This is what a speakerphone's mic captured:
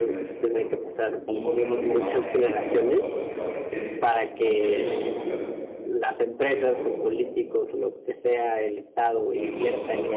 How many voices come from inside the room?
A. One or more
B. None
A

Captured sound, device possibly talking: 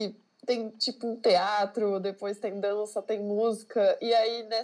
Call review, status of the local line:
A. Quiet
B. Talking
A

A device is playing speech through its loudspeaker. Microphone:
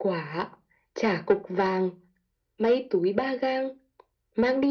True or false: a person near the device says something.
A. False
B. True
A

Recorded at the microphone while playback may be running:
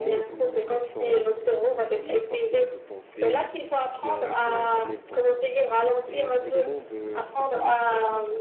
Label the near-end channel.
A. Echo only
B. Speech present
B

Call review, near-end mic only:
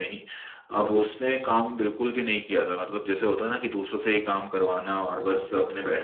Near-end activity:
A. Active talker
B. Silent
B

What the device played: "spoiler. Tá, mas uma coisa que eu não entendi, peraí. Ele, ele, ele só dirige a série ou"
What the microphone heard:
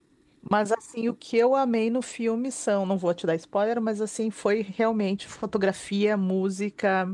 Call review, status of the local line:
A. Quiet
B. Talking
B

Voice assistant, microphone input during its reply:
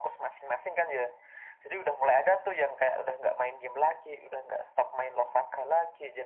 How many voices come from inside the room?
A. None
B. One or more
A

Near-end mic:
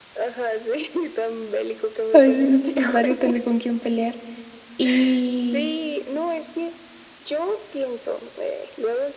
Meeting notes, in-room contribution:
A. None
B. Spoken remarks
B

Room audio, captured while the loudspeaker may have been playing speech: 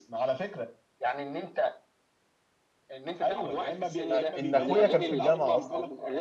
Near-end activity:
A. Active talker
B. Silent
A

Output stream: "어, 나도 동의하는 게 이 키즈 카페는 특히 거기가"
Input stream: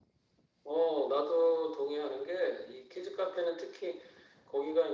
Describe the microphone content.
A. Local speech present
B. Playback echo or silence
B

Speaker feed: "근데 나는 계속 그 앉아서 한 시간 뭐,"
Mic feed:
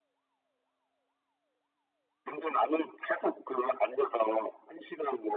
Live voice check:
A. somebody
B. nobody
B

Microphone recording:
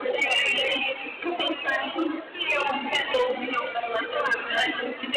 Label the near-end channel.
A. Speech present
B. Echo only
B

